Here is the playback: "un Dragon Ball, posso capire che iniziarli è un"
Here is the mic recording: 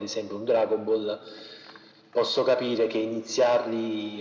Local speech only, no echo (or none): none